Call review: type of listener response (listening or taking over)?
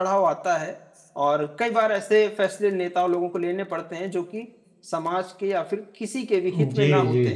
taking over